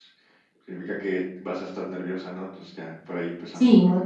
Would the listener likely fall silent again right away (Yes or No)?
No